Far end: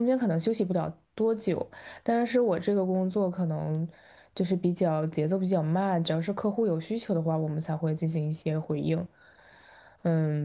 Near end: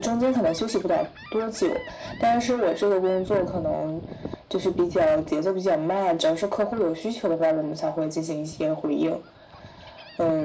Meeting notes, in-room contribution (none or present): none